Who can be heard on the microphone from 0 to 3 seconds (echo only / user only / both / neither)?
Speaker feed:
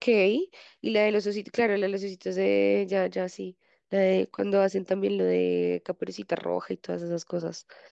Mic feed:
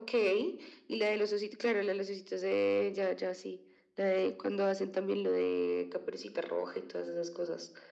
echo only